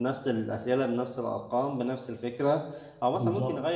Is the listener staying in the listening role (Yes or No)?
Yes